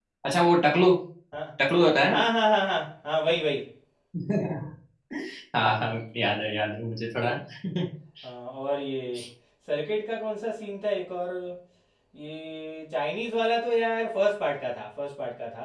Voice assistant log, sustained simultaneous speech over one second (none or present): none